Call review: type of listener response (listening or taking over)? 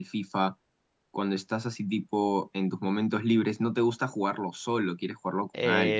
taking over